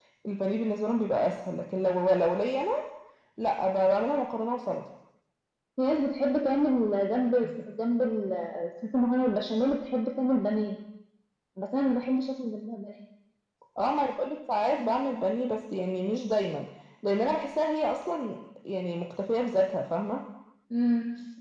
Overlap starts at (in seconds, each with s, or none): none